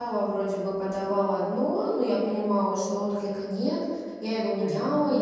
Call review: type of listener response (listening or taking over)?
listening